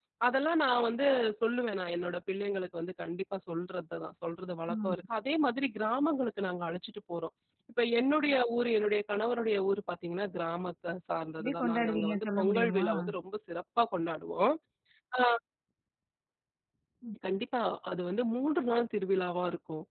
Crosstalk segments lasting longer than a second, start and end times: 11.4-12.9

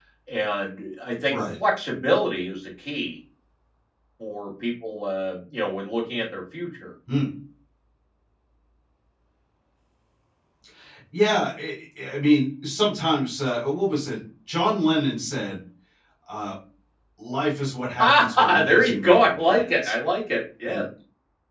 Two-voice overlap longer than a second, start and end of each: 18.0-19.9

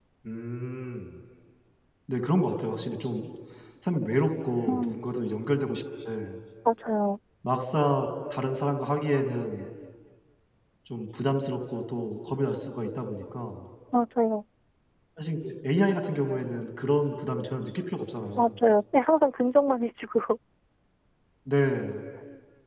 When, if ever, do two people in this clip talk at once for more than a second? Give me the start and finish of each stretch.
none

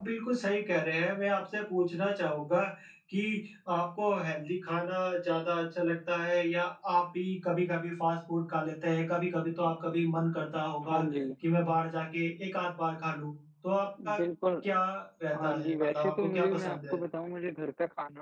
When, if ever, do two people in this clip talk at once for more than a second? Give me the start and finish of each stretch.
15.4-16.9

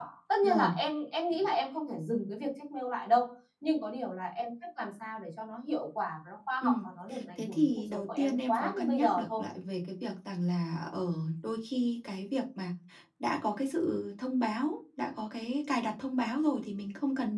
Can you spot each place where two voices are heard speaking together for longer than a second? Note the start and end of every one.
7.4-9.4

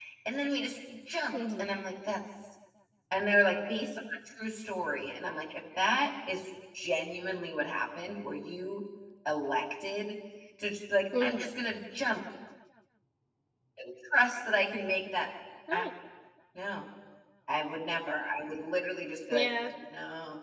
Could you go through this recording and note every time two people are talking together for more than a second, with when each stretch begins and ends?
none

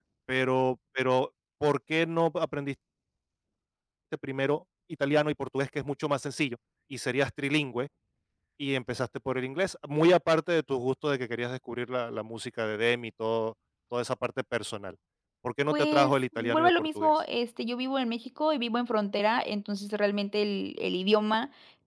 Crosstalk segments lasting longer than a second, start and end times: 15.7-17.1

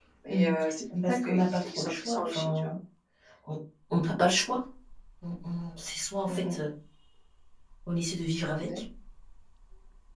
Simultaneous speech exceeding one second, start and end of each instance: 1.1-2.7

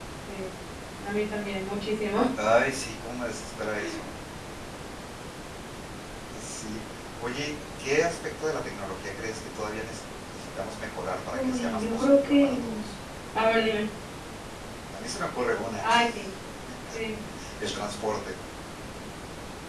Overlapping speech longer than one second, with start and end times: 11.3-12.8

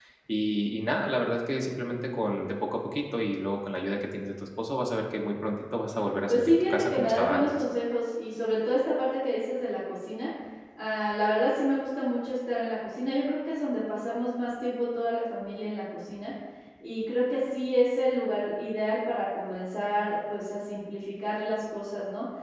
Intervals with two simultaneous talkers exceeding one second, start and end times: 6.3-7.6

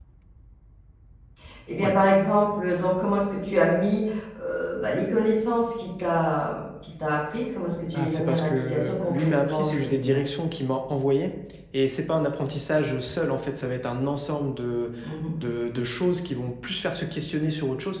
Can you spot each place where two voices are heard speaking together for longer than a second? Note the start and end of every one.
7.9-10.2

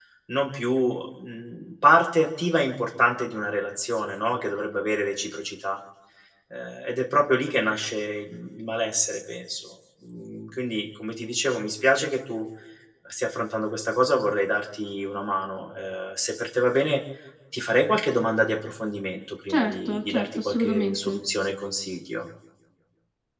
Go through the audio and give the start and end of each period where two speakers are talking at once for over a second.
19.5-21.1

